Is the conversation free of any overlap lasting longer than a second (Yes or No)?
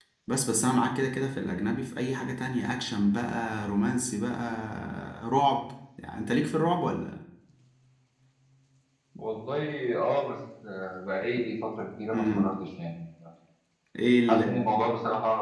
Yes